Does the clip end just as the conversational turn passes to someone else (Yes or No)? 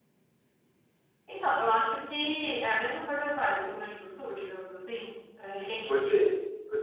Yes